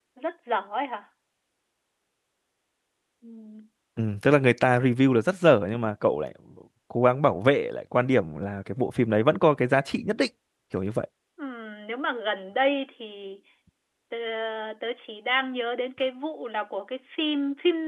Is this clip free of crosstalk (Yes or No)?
Yes